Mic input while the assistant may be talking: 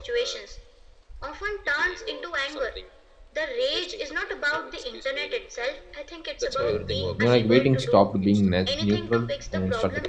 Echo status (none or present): present